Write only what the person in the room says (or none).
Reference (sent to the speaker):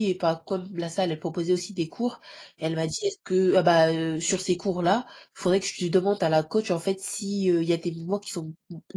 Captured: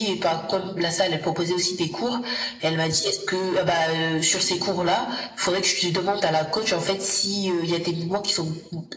none